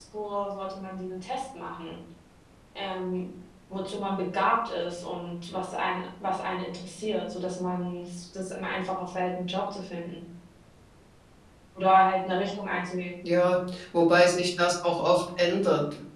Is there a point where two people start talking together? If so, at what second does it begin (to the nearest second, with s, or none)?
none